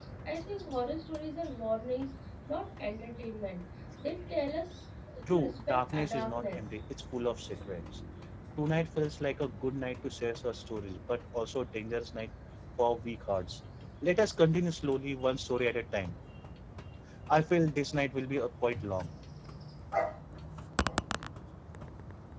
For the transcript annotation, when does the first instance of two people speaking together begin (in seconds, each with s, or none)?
5.3 s